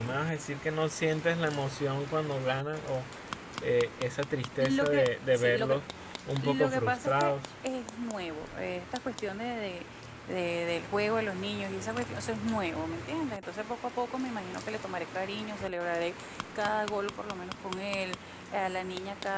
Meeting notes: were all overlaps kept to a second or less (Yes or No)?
No